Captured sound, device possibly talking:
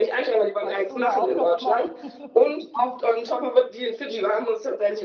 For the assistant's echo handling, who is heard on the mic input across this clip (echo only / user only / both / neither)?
both